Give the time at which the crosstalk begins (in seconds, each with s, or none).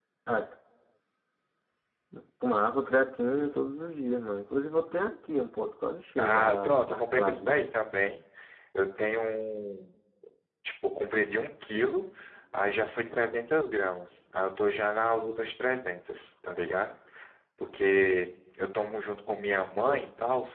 6.2 s